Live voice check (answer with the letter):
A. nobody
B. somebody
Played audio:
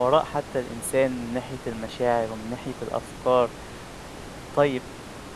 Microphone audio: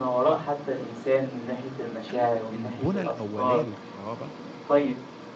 B